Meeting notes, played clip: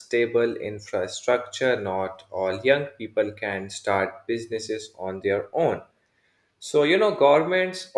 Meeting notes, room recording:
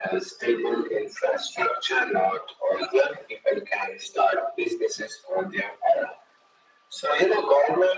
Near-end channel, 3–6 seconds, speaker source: echo only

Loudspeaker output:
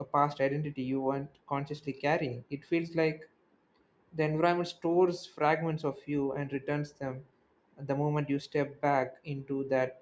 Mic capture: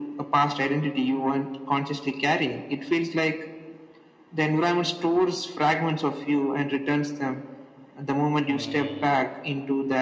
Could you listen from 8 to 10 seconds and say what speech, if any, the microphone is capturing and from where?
both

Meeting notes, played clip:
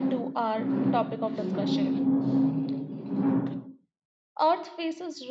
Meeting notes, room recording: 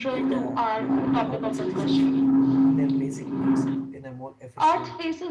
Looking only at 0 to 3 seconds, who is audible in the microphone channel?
both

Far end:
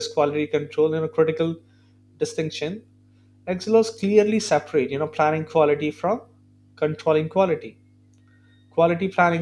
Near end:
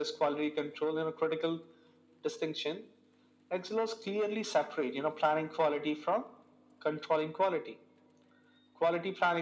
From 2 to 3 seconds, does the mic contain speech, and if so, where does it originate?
echo only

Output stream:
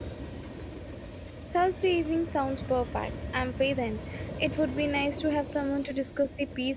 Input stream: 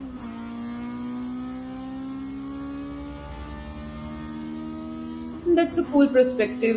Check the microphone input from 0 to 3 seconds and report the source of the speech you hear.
neither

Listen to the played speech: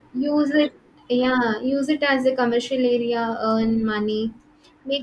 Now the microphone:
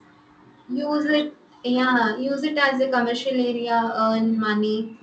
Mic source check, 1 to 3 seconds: echo only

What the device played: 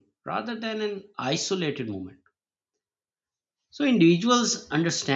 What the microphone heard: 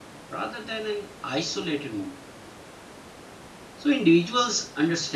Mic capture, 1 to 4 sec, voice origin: echo only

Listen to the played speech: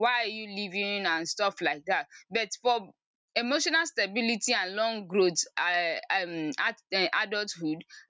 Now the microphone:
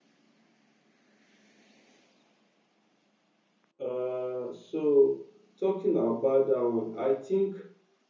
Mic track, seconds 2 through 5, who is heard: user only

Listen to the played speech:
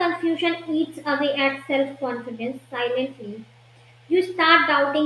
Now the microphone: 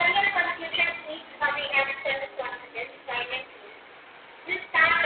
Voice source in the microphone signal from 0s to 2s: echo only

